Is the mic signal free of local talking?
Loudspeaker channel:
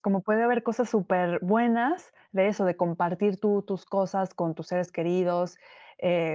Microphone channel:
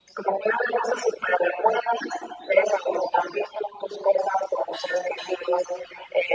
Yes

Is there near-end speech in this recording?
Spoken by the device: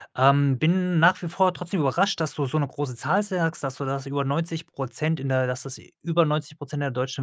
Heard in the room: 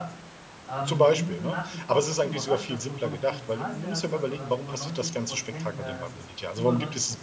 Yes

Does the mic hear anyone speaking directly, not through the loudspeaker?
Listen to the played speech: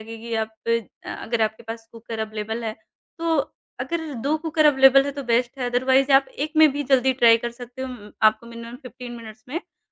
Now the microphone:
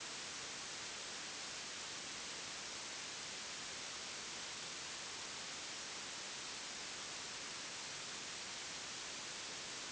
No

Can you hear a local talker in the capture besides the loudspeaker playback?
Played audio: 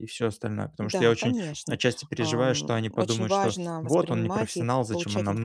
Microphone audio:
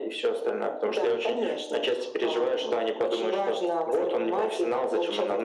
No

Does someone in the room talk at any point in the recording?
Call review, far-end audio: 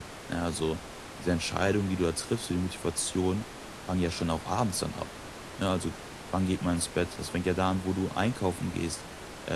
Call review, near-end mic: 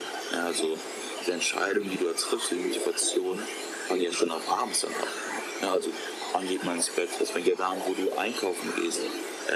No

